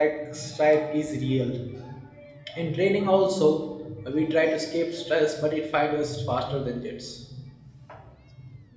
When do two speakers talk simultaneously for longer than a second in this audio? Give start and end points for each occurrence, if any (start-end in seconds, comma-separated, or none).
none